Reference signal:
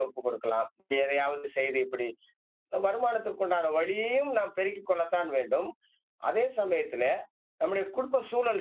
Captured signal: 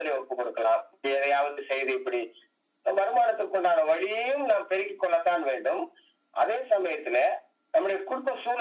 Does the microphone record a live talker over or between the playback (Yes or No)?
No